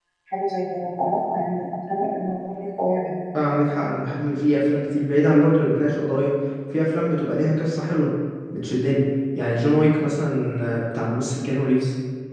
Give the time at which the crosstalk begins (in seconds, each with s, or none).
none